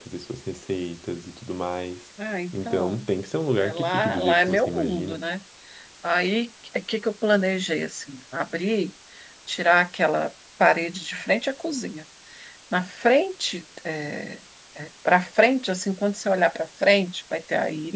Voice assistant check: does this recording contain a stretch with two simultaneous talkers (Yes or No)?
Yes